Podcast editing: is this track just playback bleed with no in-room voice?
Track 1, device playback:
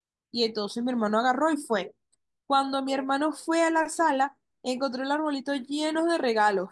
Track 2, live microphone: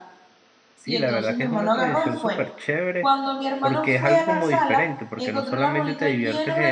No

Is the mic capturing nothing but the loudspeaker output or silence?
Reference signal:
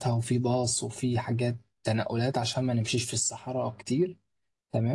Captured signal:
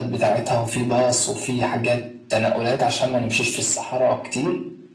Yes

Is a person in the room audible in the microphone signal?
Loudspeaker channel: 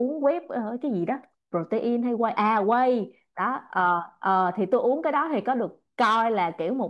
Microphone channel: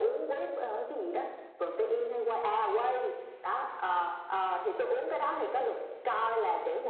No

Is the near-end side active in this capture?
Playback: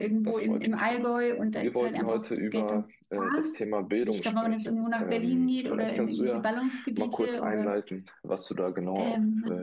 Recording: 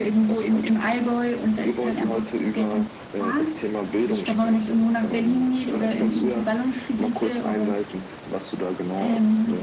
No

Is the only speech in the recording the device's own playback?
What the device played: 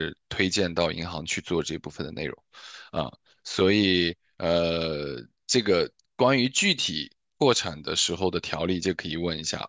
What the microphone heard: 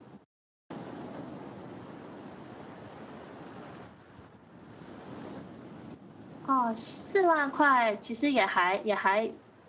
No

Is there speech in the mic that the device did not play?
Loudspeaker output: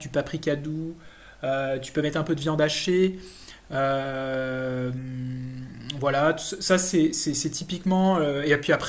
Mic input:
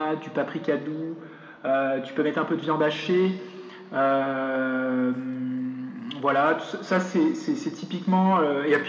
No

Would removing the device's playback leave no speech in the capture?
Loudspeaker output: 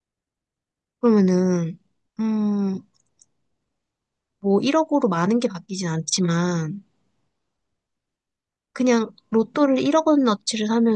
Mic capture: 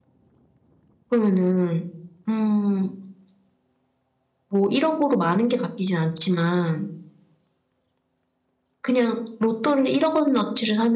Yes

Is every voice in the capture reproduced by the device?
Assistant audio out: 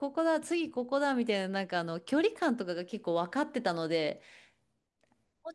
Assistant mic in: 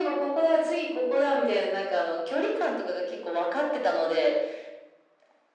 Yes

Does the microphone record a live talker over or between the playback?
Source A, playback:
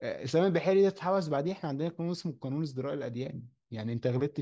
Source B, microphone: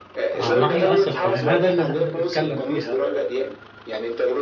Yes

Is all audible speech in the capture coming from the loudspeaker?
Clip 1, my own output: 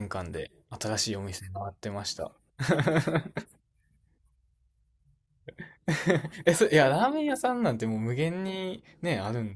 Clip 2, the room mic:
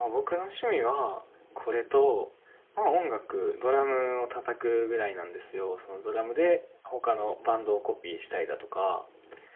No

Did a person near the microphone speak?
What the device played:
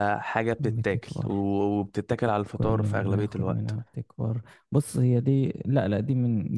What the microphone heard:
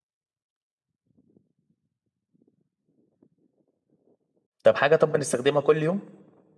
Yes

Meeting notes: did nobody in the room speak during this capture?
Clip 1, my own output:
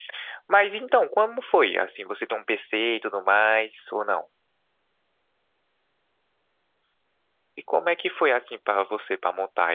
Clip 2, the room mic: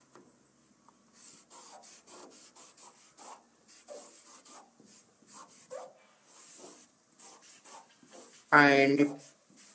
No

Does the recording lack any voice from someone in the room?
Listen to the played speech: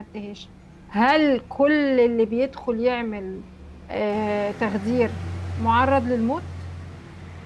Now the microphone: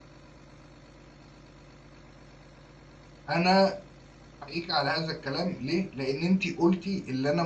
No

